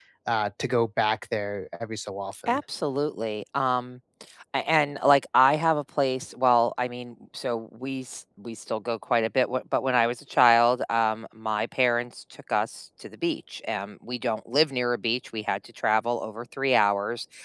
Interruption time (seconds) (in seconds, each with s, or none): none